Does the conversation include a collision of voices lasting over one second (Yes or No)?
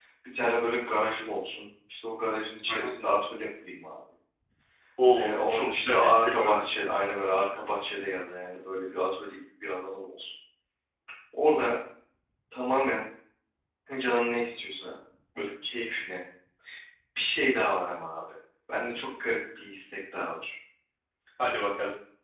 Yes